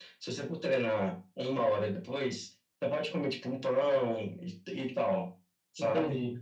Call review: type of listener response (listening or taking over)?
listening